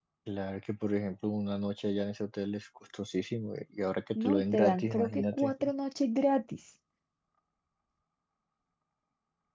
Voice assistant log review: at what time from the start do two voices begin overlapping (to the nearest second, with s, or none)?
4 s